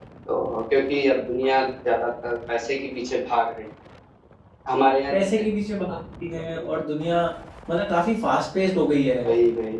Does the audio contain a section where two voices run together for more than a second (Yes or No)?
No